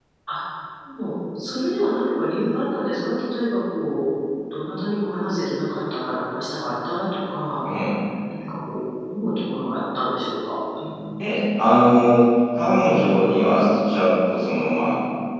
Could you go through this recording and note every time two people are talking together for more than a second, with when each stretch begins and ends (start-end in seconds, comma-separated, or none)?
none